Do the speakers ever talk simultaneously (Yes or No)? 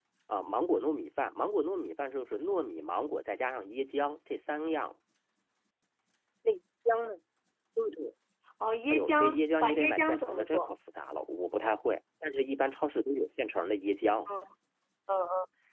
Yes